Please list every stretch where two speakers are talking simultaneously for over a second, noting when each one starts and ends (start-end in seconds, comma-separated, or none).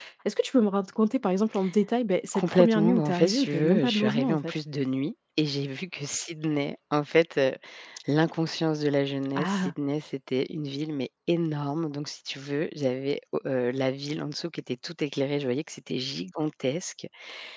2.3-4.5